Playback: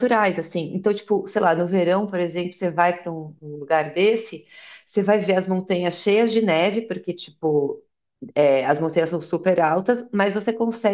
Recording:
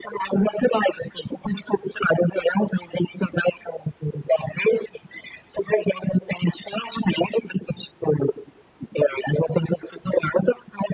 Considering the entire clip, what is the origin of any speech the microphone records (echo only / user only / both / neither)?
echo only